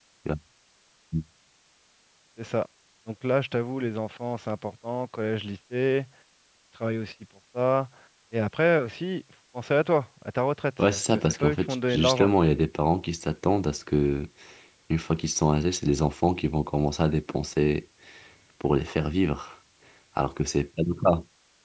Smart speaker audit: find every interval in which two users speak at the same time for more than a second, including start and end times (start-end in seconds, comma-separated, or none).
10.8-12.3